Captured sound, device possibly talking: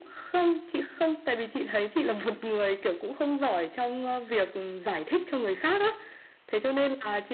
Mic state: echo only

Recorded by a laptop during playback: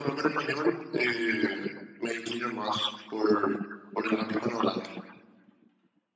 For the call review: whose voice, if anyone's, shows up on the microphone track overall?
echo only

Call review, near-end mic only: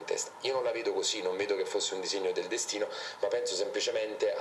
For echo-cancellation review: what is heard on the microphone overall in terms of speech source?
echo only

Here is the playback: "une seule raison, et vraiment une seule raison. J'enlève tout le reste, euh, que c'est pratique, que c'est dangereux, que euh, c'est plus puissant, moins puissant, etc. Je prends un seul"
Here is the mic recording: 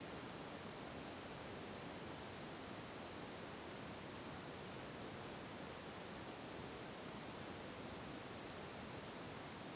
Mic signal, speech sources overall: neither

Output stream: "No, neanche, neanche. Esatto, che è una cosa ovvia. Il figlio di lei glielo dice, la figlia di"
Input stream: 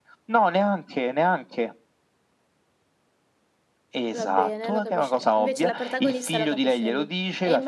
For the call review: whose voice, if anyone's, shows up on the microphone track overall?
both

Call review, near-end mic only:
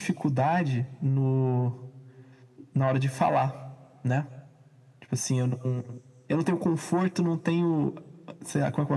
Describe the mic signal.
echo only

